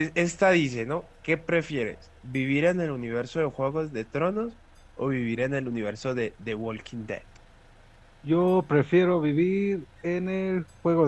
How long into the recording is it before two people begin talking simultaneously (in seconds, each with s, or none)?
none